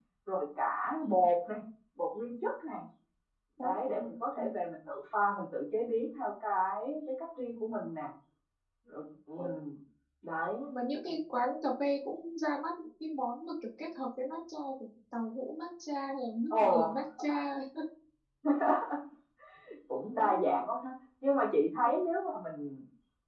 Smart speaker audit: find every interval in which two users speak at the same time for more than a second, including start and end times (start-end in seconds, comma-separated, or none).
none